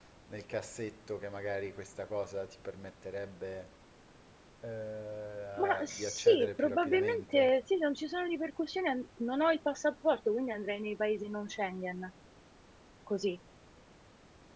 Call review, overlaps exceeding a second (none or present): present